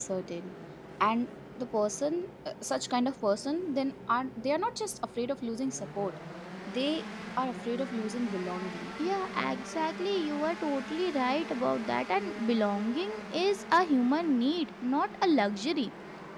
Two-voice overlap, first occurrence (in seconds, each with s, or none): none